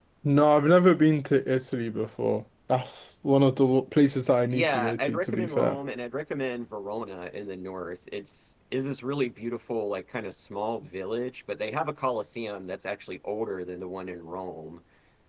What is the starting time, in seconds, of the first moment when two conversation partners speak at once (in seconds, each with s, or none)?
4.5 s